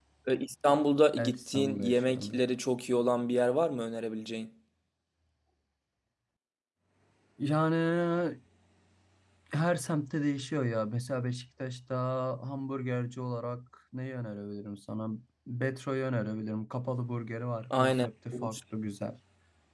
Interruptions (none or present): present